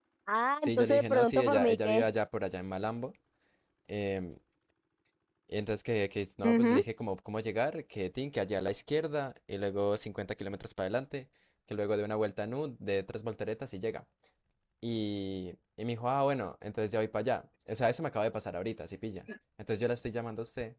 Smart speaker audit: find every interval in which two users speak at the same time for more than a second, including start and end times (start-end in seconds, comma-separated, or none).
0.6-2.1